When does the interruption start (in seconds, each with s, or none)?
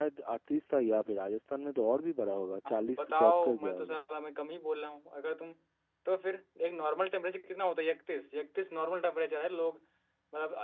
2.6 s